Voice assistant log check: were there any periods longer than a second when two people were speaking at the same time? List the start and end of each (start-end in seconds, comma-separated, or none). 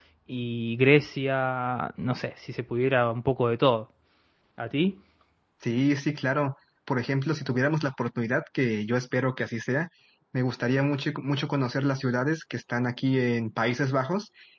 none